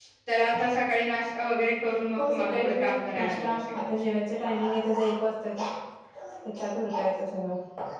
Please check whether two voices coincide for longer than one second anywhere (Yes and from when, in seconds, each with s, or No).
Yes, from 2.2 s